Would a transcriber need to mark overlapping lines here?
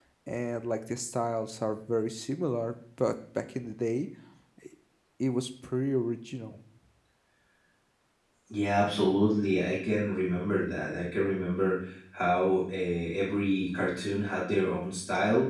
No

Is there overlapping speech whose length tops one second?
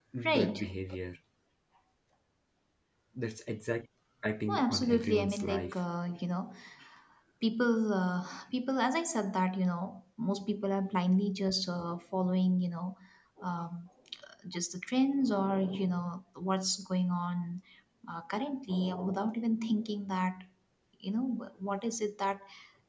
Yes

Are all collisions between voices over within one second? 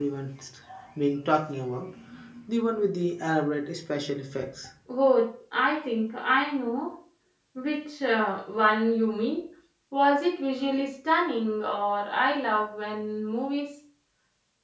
Yes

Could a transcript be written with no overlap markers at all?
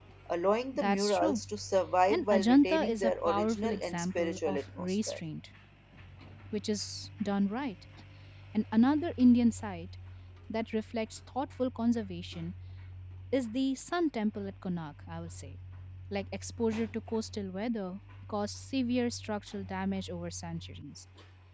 No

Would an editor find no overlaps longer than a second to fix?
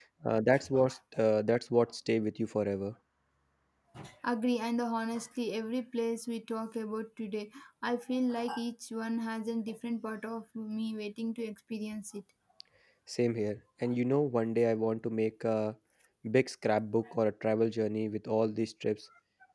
Yes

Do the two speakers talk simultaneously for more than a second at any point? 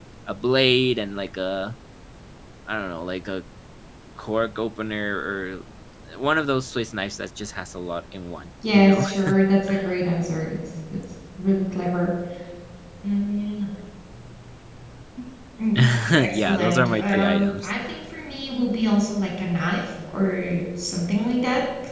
Yes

